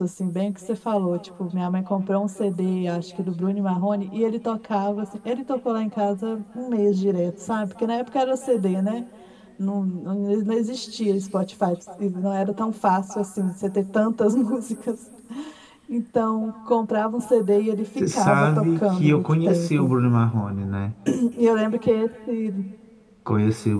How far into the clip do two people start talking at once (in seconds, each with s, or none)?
18.0 s